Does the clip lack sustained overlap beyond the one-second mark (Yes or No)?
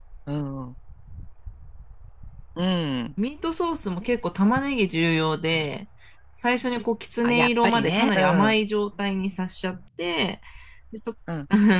No